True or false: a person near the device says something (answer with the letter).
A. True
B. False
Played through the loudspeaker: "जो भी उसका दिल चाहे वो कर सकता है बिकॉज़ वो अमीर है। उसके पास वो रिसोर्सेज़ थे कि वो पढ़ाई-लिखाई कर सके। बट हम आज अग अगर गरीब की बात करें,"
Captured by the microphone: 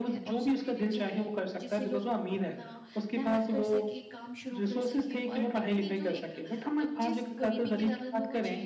A